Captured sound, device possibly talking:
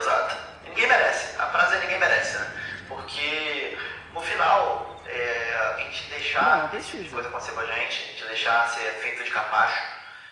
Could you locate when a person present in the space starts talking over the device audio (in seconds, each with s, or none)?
6.4 s